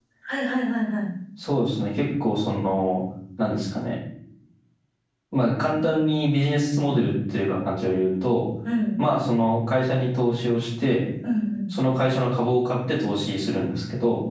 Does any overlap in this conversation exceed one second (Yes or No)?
No